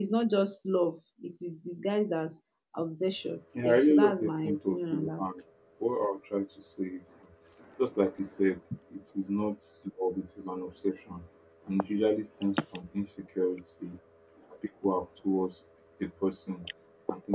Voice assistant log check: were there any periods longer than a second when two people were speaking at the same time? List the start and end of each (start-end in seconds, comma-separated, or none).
3.6-5.2